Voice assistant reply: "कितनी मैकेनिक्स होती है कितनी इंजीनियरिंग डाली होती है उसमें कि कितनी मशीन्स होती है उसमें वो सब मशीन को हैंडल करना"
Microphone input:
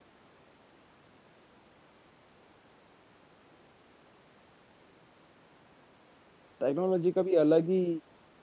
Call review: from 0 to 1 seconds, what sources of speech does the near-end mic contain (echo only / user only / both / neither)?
neither